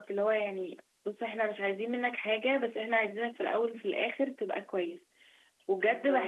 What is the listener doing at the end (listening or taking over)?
listening